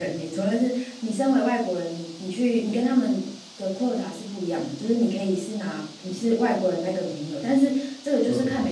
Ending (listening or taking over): listening